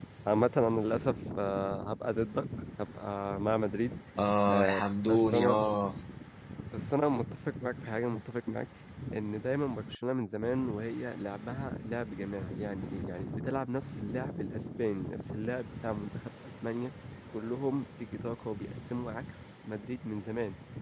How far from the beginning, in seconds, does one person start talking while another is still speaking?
4 s

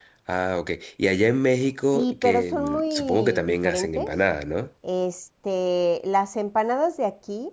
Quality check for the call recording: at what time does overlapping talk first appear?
2 s

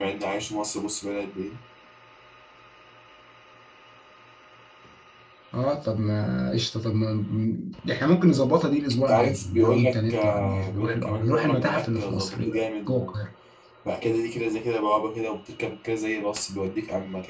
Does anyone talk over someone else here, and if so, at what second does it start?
9 s

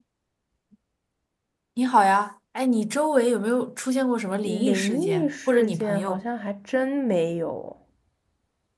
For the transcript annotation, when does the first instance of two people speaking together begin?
4 s

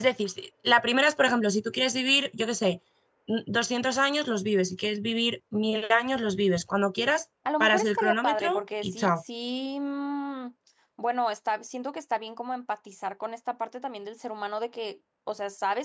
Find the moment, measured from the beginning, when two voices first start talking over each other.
7 s

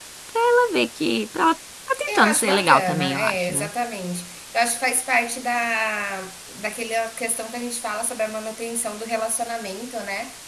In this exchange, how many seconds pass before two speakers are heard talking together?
2 s

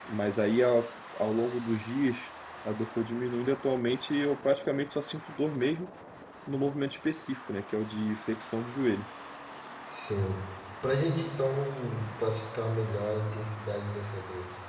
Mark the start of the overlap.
none

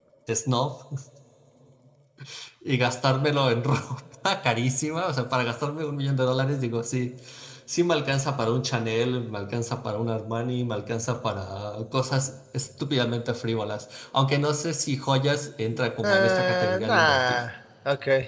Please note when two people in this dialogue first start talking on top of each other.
16 s

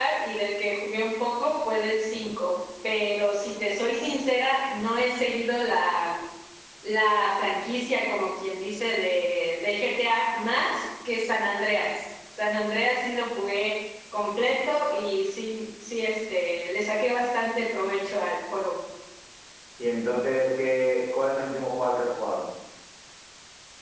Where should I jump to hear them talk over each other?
none

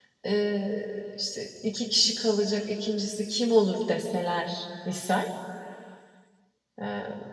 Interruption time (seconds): none

